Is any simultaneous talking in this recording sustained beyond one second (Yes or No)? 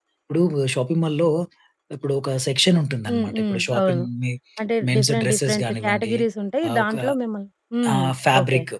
Yes